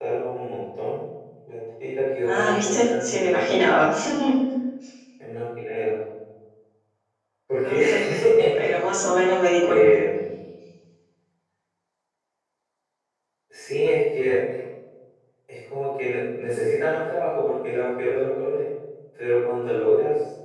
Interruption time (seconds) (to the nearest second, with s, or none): 2 s